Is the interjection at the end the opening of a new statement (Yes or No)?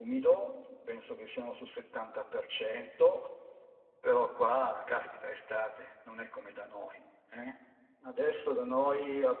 No